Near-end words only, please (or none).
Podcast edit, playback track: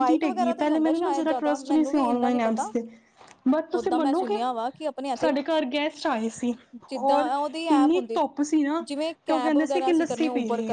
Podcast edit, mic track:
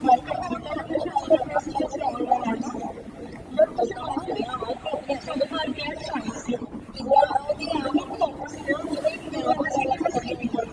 none